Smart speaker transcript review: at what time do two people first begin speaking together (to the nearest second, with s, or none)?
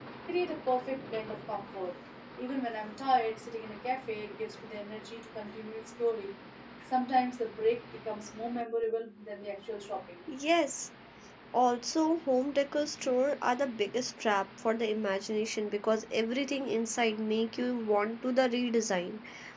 none